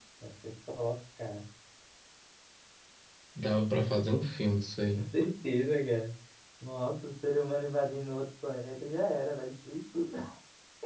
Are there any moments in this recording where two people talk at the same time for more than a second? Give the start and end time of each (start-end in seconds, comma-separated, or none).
none